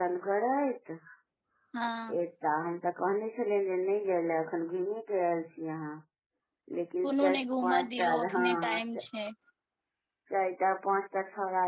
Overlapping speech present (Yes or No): Yes